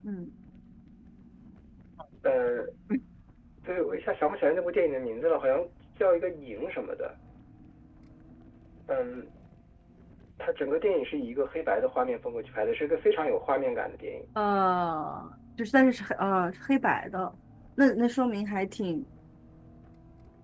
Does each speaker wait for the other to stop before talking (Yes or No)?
Yes